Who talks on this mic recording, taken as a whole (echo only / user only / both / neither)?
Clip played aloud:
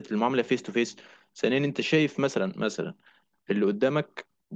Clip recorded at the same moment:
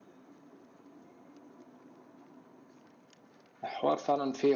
user only